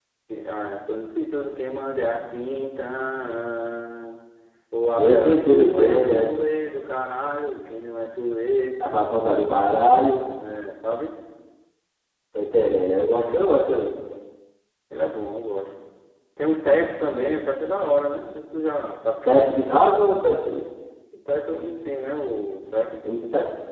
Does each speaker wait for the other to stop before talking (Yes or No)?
No